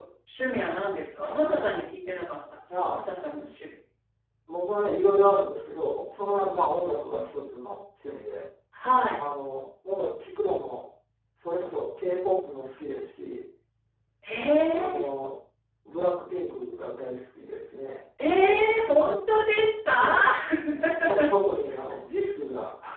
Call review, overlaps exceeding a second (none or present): none